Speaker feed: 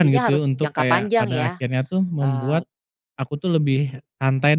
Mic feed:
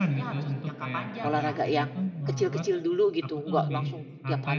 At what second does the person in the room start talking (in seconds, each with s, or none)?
1.2 s